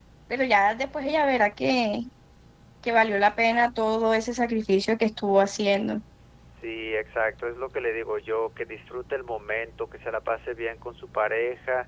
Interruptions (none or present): none